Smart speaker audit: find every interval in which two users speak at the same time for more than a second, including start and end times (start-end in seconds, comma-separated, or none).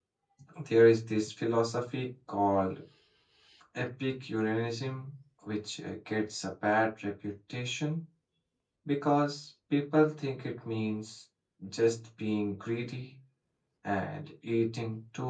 none